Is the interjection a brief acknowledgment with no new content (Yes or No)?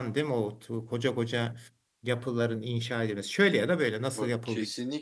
No